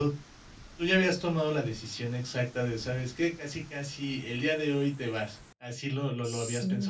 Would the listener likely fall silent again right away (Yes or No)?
No